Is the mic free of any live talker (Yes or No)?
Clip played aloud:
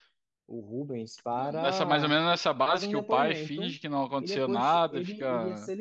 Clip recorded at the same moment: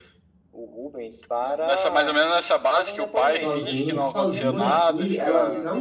No